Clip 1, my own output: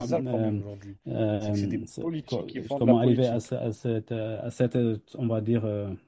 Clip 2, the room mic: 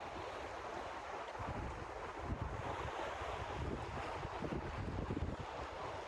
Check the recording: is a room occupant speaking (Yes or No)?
No